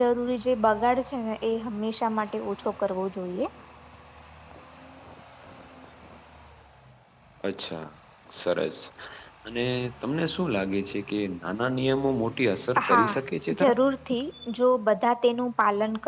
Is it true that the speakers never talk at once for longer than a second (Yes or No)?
Yes